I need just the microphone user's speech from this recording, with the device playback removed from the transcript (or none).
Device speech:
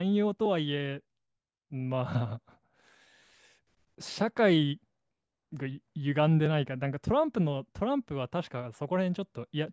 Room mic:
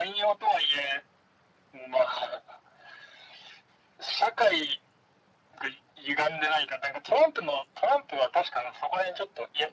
none